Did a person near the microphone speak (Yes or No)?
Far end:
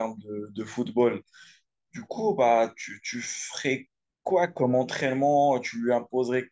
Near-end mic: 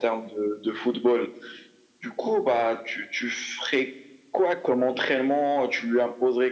No